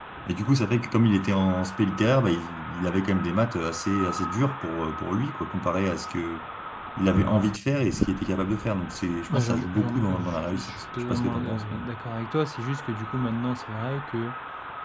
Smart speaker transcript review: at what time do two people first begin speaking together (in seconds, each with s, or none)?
9.3 s